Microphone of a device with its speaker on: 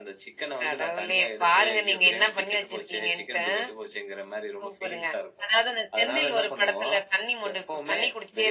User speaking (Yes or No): No